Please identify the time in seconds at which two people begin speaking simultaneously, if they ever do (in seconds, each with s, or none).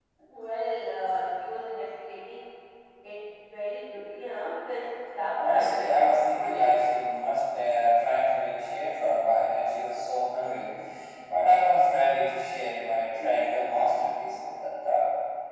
5.3 s